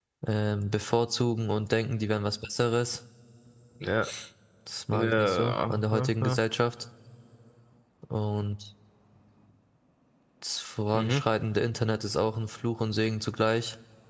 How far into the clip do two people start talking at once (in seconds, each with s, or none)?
4.9 s